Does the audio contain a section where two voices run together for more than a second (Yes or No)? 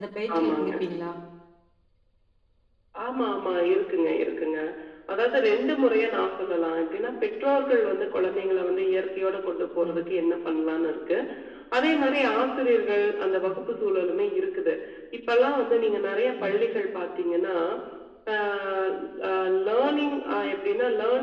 No